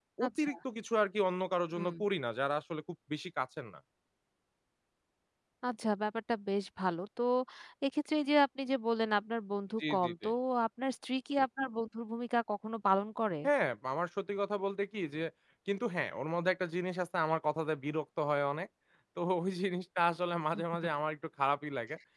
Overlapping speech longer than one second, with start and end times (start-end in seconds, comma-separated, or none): none